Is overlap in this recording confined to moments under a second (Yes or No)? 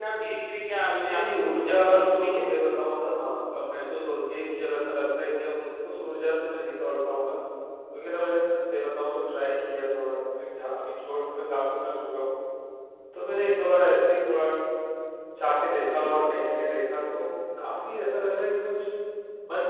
No